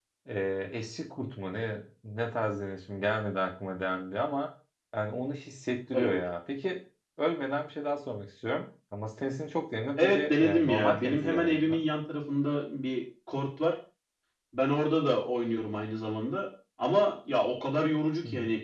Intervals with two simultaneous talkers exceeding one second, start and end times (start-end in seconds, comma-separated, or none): 10.0-11.8